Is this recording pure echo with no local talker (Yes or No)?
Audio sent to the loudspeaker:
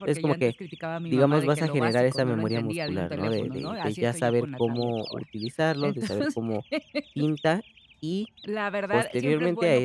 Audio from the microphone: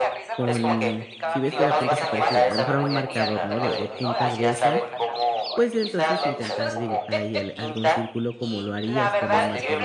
No